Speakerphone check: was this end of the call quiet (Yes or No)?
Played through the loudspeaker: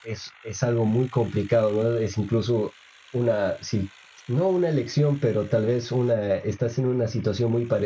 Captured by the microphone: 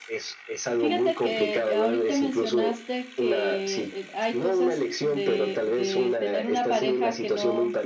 No